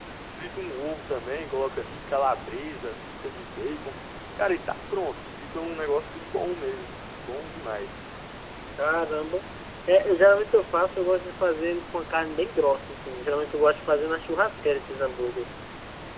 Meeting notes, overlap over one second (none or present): none